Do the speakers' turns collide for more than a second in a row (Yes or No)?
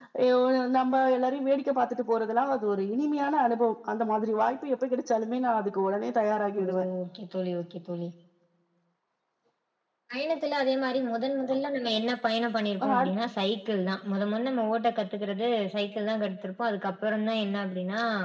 No